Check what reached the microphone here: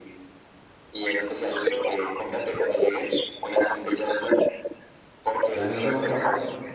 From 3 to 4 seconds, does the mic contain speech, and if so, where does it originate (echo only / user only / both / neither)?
echo only